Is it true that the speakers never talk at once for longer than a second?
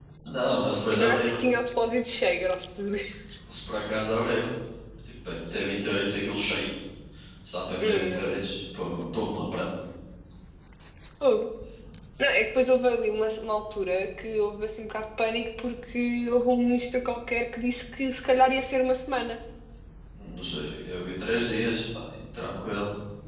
Yes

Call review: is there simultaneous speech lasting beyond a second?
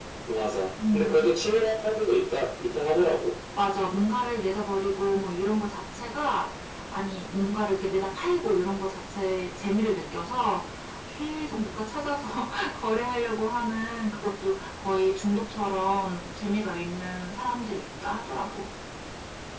No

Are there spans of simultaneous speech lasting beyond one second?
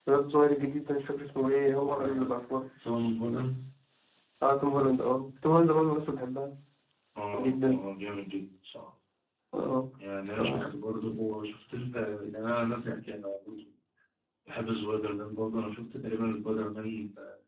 No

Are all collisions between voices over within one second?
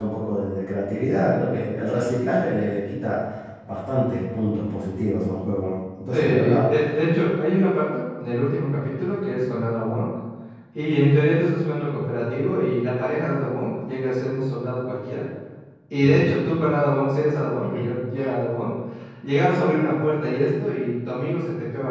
Yes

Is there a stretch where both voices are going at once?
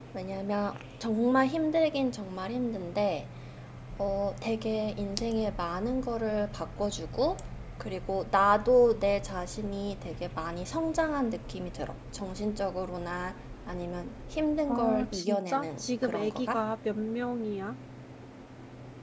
Yes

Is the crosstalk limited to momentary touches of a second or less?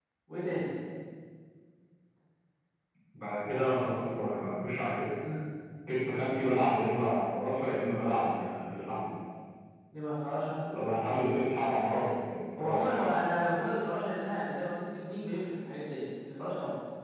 Yes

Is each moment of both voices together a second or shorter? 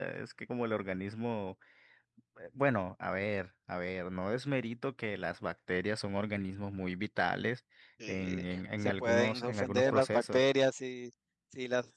No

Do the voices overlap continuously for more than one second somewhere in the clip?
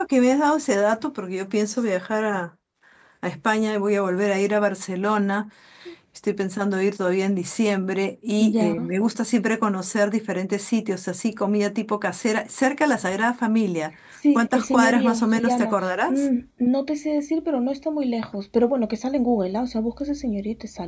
Yes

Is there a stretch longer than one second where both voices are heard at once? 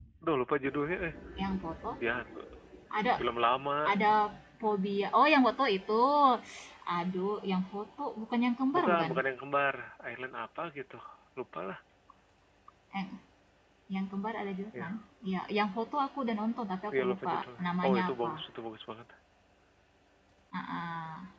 Yes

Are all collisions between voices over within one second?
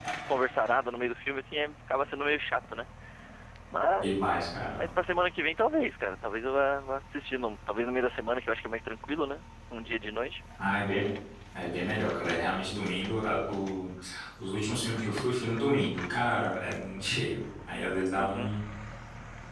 Yes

